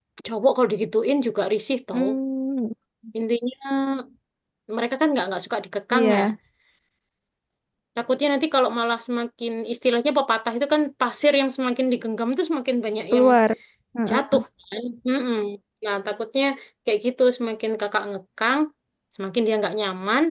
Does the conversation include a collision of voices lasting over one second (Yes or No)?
No